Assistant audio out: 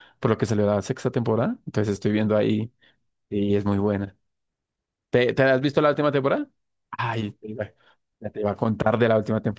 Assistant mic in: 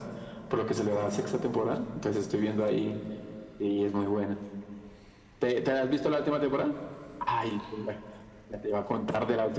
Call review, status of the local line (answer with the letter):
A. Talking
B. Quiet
B